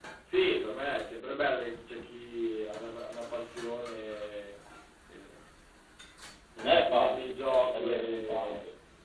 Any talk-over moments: Yes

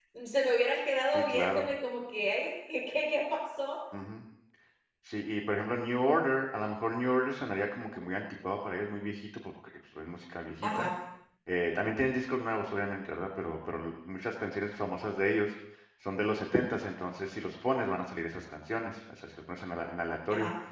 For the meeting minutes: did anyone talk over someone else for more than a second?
No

